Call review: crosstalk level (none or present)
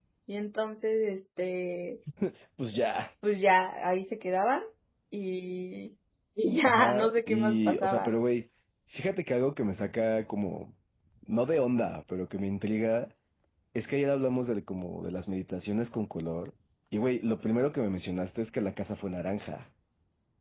present